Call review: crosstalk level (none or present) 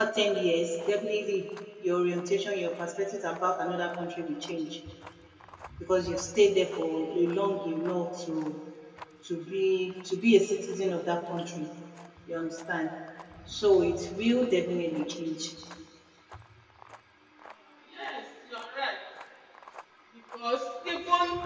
none